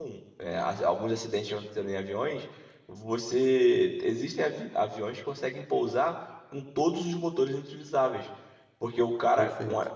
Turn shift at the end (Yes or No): No